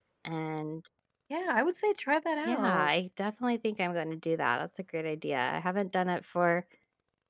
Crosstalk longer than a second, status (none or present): none